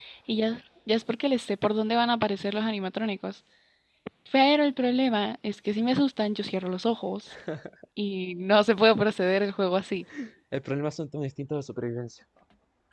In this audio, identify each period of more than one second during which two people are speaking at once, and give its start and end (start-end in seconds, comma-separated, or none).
none